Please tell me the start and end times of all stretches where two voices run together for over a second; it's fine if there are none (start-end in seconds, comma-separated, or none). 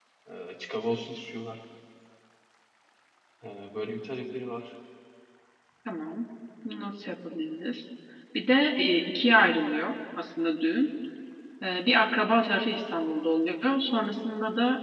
none